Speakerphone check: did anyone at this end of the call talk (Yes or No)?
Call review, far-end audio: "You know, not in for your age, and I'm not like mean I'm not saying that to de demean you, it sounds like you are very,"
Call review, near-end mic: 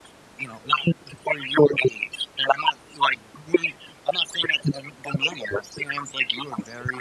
No